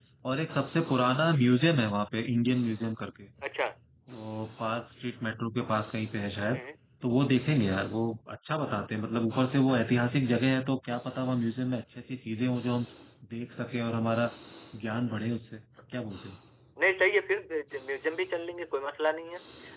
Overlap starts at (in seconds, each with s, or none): none